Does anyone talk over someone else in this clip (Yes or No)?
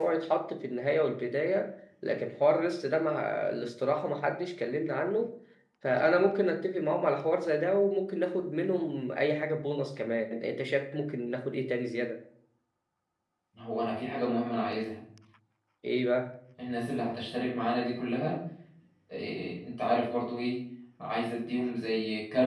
No